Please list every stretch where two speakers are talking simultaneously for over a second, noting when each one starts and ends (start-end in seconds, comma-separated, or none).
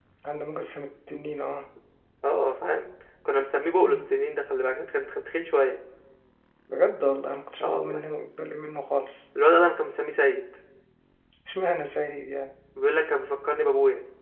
none